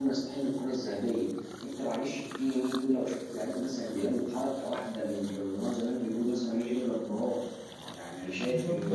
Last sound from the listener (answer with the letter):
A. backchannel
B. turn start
B